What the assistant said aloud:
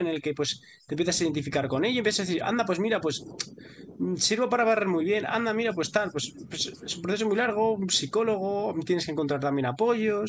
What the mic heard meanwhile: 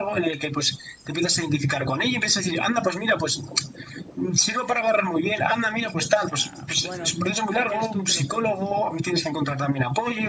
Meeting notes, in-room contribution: present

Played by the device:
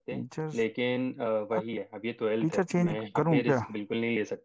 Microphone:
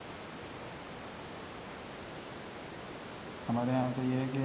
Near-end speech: present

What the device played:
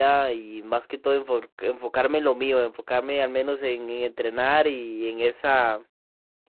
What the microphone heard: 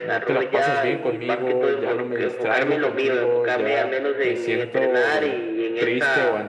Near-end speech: present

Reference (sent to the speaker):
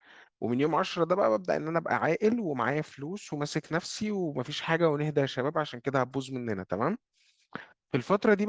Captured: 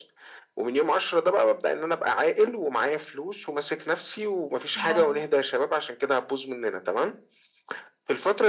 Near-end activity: present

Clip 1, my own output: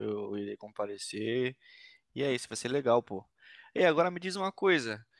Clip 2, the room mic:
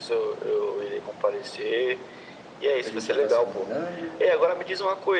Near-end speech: present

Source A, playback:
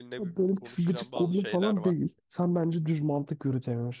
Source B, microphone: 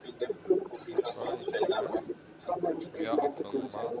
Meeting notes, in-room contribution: present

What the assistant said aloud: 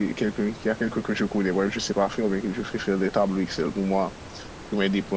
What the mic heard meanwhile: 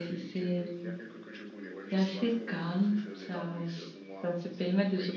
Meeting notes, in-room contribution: present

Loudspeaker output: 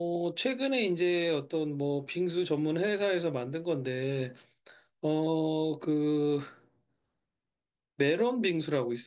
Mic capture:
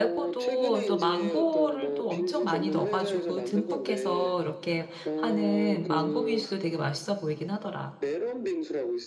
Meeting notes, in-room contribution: present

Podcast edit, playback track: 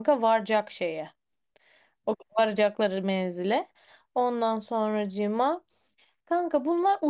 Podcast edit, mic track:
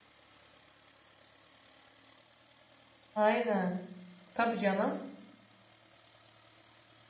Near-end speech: present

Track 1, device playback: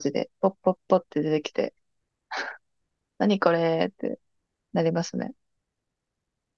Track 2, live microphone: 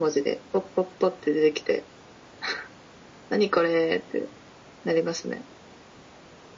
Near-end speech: none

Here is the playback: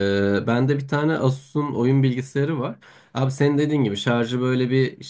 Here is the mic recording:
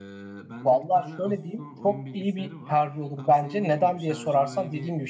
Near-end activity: present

